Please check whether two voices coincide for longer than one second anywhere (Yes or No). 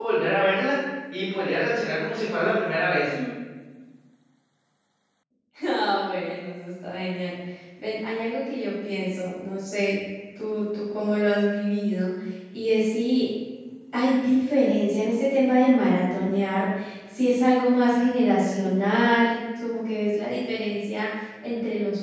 No